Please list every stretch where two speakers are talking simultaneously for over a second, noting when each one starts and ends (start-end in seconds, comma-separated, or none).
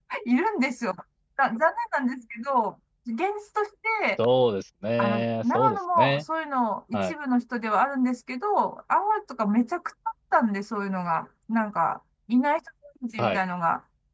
5.0-6.2